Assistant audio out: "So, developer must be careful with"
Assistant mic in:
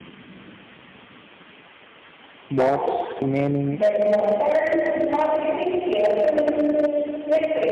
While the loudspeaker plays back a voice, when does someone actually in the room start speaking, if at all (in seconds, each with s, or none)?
2.5 s